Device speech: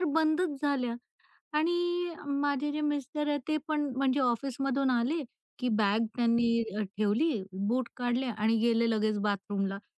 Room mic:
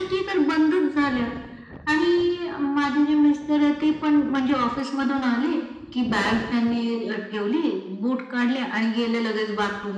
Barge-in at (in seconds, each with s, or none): none